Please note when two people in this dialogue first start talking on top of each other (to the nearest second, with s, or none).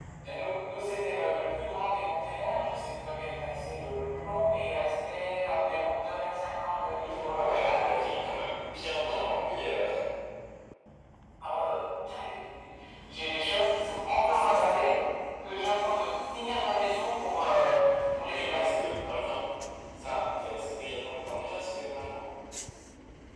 7 s